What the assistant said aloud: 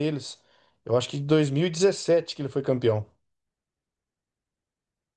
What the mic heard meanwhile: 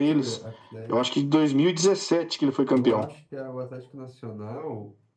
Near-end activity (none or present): present